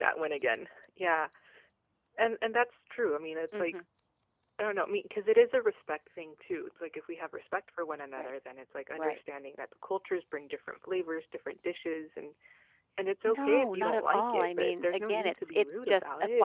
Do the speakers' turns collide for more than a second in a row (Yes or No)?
Yes